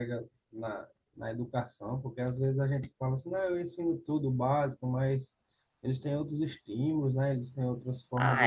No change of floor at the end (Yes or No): No